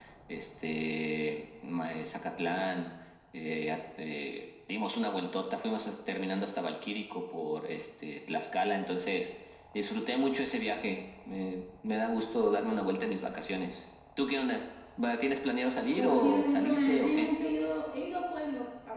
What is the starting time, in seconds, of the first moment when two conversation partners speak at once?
15.8 s

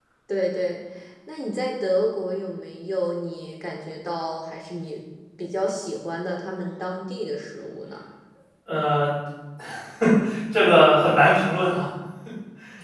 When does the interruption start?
none

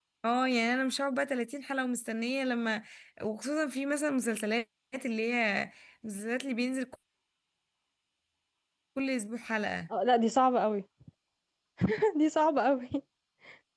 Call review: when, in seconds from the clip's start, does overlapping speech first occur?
none

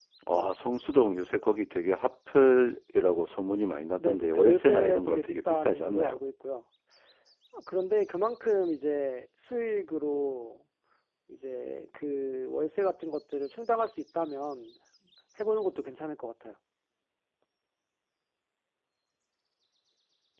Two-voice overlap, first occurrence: 4.0 s

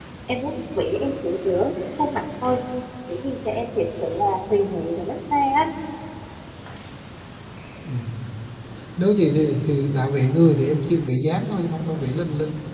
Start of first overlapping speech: none

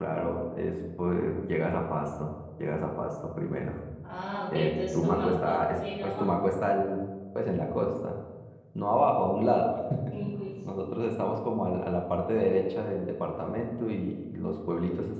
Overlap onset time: 4.5 s

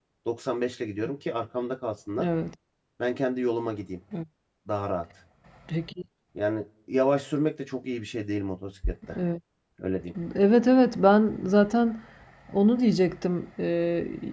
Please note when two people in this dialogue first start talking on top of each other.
none

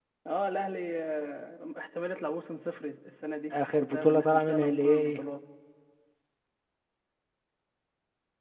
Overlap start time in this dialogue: 3.8 s

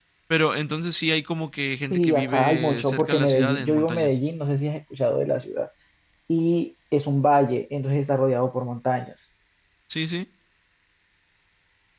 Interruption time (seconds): 1.9 s

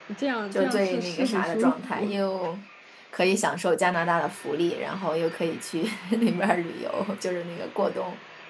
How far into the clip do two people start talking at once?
0.5 s

